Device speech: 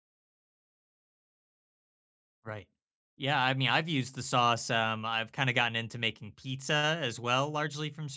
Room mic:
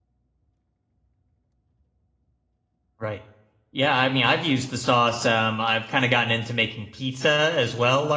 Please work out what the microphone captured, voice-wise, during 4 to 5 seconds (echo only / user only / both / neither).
echo only